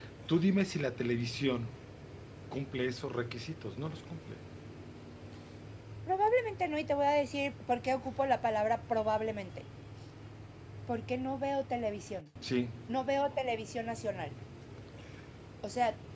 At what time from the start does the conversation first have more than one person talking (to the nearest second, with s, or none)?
none